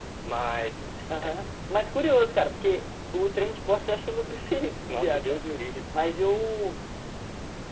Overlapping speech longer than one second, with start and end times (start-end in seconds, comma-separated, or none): none